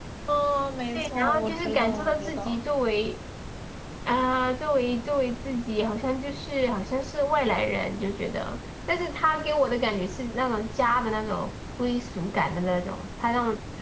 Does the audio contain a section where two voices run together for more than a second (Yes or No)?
Yes